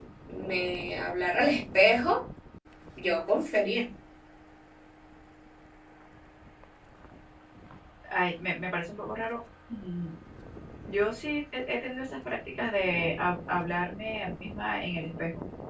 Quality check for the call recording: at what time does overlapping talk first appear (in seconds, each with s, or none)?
none